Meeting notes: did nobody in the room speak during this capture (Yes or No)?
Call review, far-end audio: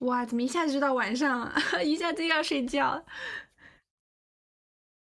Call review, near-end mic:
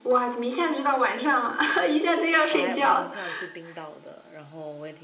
No